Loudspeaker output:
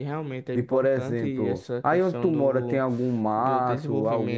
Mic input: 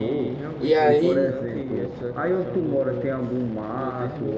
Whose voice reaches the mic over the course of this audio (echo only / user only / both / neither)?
both